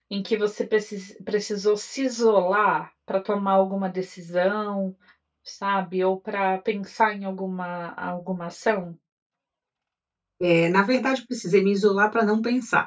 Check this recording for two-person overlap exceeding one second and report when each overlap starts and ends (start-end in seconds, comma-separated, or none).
none